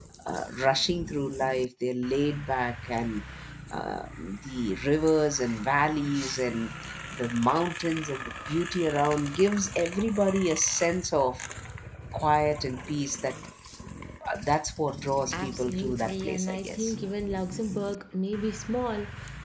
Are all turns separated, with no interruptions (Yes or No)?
No